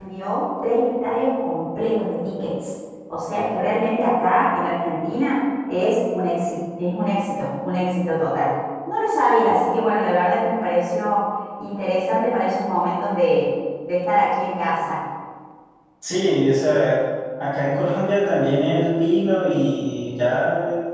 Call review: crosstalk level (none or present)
none